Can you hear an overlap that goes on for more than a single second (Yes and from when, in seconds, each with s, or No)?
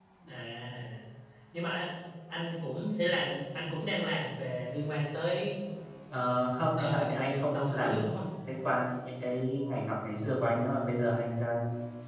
Yes, from 6.8 s